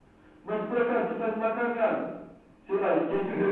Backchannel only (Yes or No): Yes